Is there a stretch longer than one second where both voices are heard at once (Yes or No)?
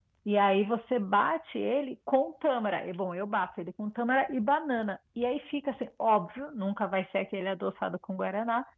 No